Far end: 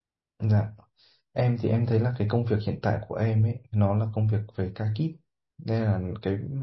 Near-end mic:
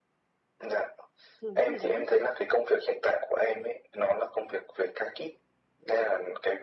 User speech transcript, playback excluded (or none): thường những người đấy ý,